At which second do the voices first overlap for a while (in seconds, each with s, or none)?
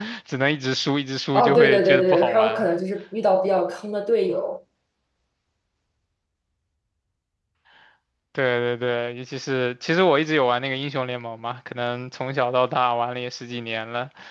1.3 s